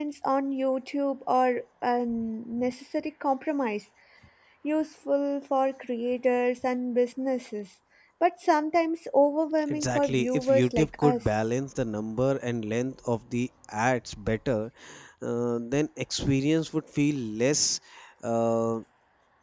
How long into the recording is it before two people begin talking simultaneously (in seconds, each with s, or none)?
9.7 s